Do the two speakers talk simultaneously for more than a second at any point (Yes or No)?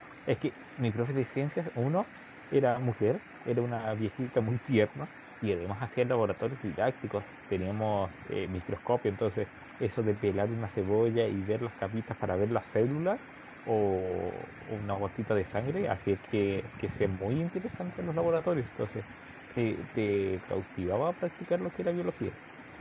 No